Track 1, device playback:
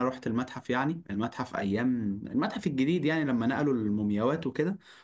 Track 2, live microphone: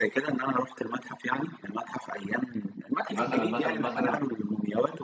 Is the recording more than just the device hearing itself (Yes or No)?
Yes